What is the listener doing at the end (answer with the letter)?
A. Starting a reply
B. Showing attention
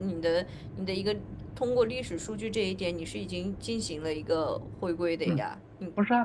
A